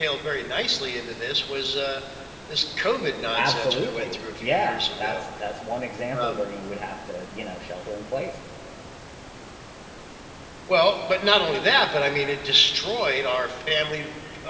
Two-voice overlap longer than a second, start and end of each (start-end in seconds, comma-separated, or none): 3.4-5.2